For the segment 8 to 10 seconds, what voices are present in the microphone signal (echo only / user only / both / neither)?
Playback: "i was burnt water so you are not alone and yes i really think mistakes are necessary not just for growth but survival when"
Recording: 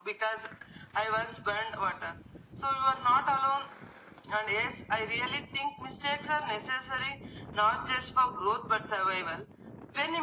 echo only